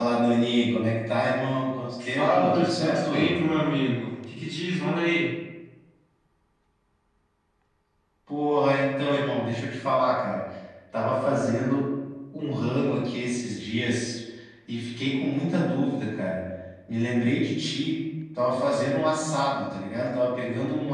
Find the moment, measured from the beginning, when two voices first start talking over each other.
2.0 s

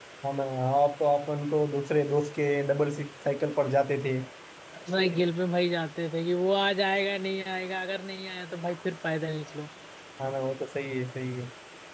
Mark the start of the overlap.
none

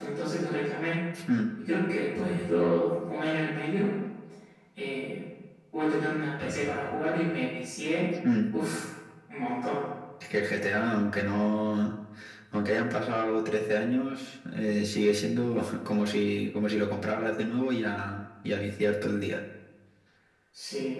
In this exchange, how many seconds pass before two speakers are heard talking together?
none

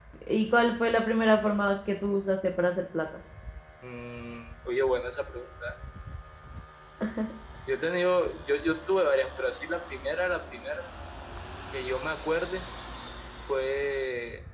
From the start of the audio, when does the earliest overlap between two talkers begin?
none

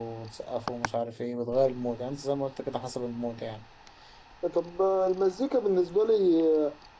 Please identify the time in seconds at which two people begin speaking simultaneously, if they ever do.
none

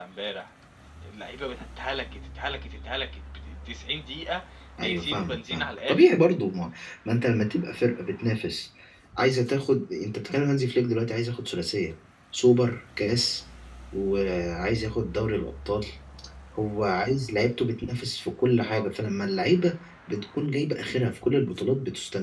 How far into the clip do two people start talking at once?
4.8 s

